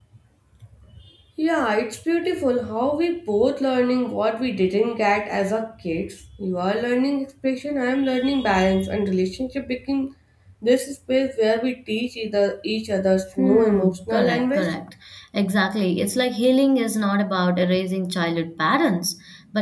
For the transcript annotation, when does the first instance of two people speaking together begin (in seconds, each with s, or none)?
13.4 s